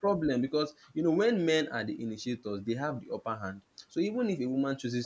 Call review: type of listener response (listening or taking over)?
listening